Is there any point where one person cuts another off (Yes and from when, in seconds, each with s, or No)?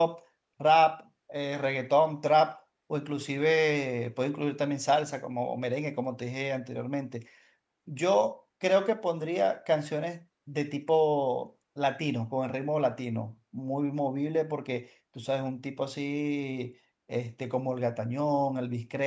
No